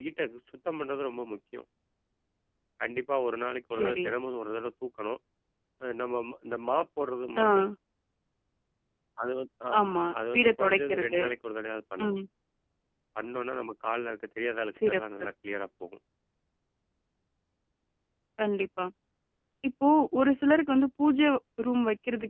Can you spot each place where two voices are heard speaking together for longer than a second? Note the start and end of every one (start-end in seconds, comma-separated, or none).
9.8-11.2